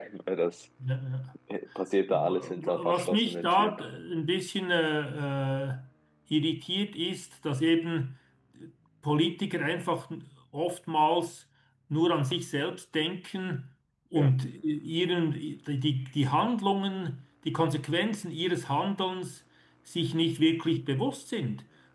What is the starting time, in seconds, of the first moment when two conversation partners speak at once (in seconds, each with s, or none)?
2.1 s